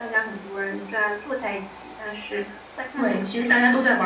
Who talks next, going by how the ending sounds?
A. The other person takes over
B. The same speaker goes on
A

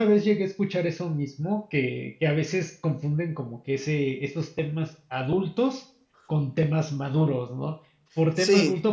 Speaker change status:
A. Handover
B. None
B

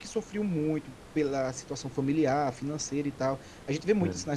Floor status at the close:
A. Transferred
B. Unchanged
B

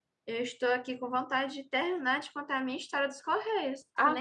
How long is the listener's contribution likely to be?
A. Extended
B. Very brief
A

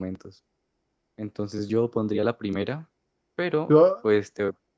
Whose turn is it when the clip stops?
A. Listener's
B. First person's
B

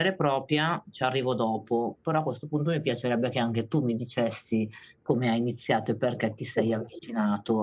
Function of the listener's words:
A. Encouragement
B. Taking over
A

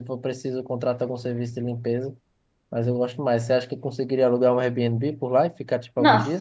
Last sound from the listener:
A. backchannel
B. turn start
B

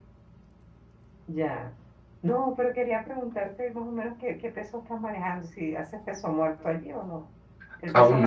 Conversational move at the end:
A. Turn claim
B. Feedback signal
B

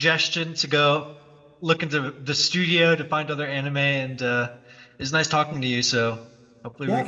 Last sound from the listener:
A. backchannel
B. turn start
B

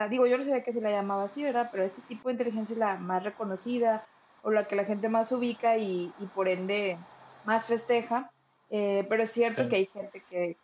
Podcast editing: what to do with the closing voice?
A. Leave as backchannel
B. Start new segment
A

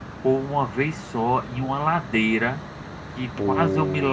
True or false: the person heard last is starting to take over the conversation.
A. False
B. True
A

